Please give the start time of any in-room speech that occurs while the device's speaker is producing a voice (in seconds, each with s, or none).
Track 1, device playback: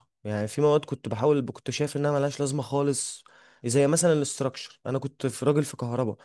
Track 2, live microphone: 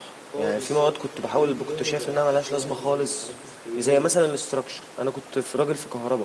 0.3 s